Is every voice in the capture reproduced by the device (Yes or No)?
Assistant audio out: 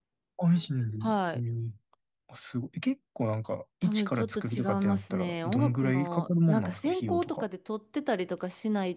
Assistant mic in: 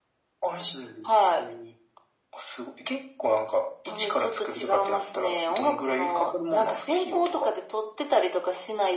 Yes